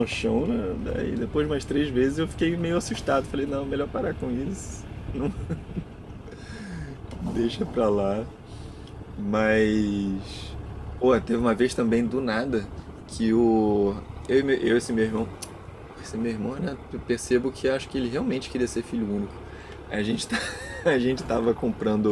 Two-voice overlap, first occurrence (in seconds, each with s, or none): none